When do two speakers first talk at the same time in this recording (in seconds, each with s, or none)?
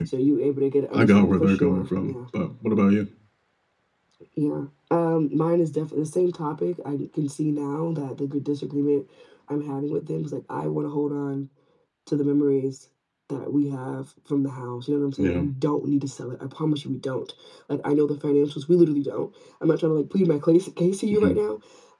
0.9 s